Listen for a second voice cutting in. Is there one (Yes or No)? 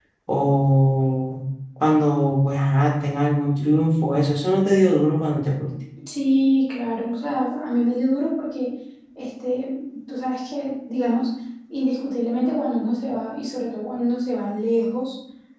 No